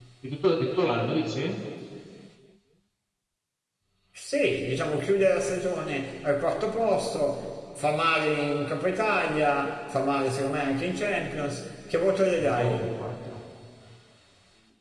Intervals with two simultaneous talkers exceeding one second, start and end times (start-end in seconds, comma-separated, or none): none